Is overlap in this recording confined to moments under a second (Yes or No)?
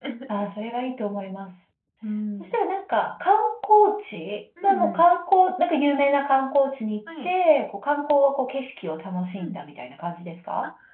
Yes